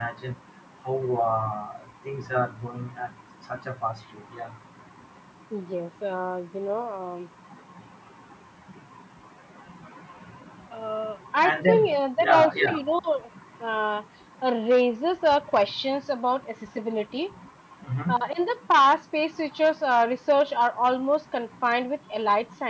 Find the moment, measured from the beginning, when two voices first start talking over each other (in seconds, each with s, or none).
11.4 s